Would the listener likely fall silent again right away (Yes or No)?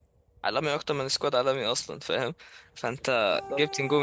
Yes